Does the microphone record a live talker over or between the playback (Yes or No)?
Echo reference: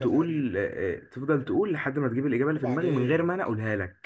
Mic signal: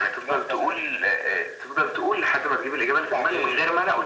No